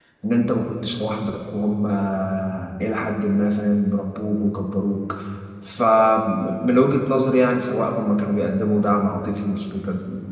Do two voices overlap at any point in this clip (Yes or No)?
No